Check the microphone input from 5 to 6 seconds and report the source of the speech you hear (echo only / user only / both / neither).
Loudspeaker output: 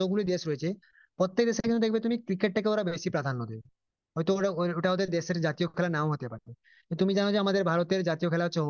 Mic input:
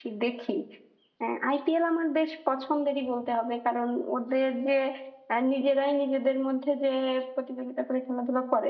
user only